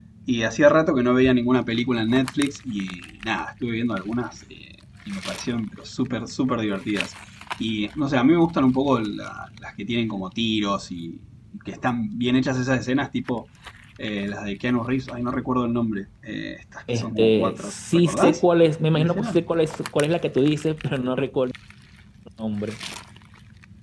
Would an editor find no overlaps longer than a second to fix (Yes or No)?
No